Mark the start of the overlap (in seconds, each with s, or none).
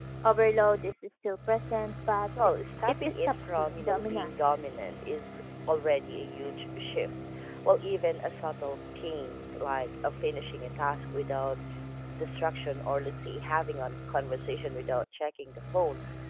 2.4 s